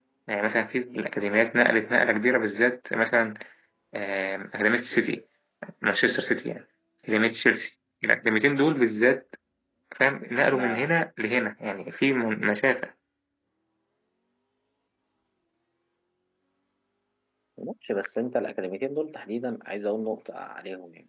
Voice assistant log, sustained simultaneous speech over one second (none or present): none